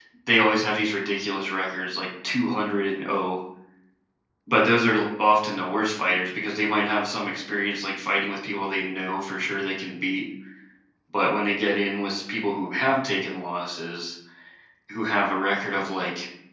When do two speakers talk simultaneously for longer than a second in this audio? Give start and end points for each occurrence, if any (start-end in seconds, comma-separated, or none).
none